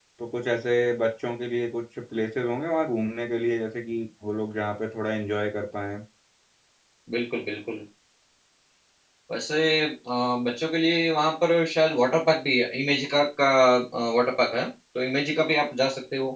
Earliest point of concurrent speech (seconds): none

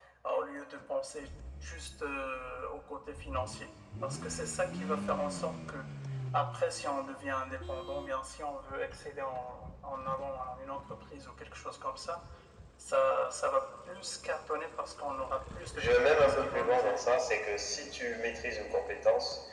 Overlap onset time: 15.8 s

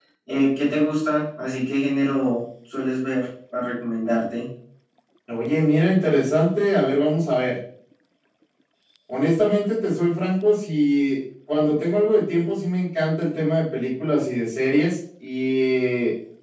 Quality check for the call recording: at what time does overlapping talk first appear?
none

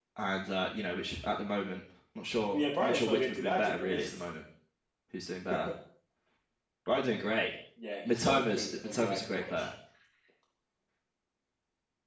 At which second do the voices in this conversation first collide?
2.5 s

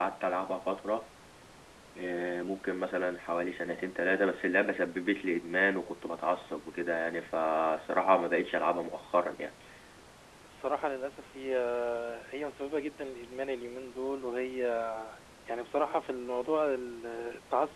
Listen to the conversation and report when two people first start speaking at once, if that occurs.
none

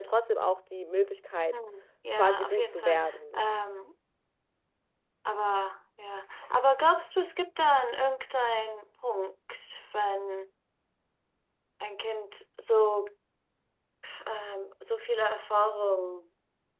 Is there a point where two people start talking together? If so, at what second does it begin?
2.1 s

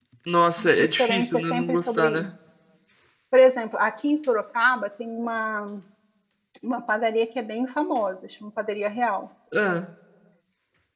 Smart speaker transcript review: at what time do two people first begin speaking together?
0.6 s

